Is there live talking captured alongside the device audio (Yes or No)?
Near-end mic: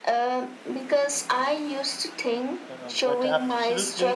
Yes